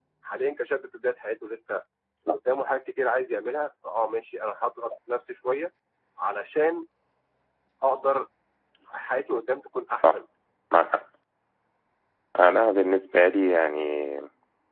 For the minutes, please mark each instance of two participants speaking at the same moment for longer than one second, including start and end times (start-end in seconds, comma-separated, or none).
none